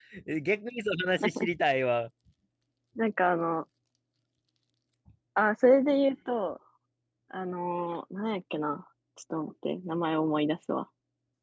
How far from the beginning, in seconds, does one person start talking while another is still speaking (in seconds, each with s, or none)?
none